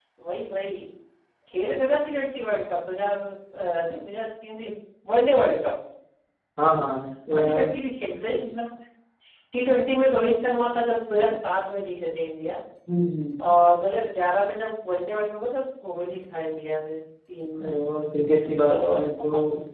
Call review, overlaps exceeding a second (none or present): none